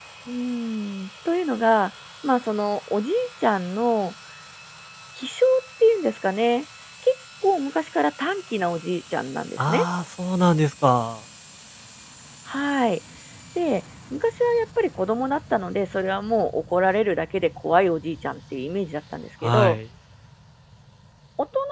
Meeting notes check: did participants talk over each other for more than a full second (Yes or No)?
No